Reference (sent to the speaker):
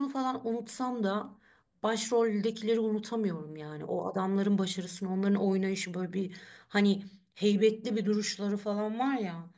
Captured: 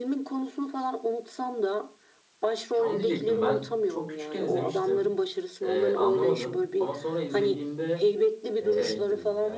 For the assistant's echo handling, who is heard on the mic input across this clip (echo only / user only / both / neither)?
both